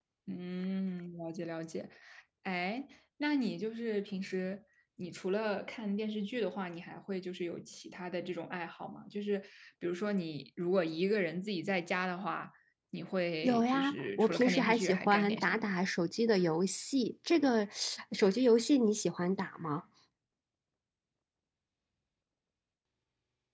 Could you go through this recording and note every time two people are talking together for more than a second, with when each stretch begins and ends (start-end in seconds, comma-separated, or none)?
13.4-15.7